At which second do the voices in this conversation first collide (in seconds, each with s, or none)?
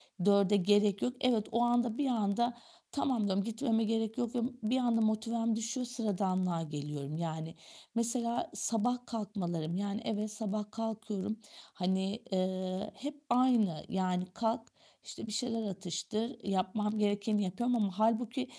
none